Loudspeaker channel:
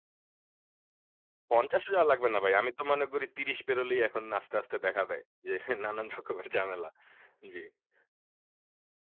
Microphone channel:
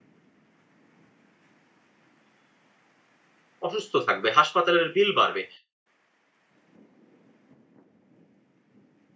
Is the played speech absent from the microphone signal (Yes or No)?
Yes